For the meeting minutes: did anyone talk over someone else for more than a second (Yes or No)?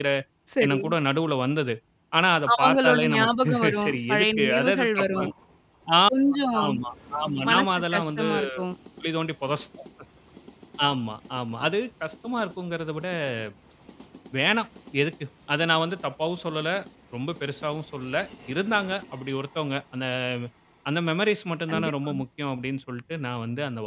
Yes